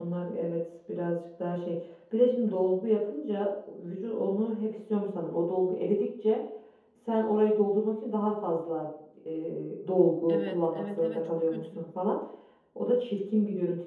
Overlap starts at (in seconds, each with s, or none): 10.3 s